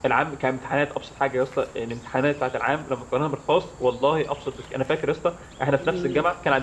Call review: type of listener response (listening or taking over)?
listening